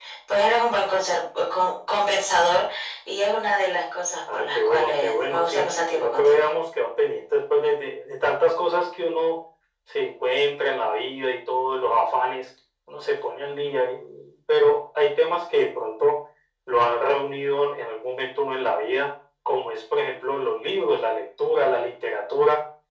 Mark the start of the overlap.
4.3 s

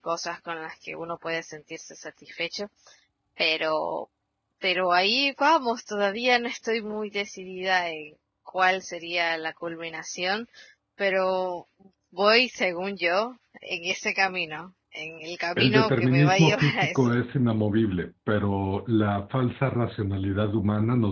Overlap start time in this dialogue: 15.6 s

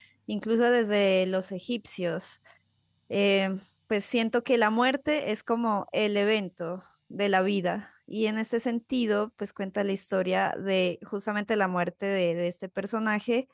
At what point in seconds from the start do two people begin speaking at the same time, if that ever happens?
none

